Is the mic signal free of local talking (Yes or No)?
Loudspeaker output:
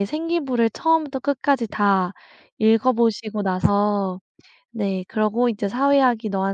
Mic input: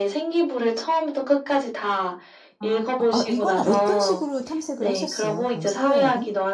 No